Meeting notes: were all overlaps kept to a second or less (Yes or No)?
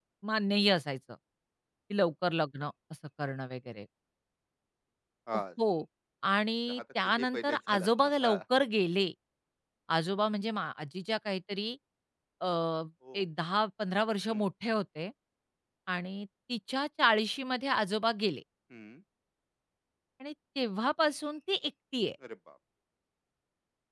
No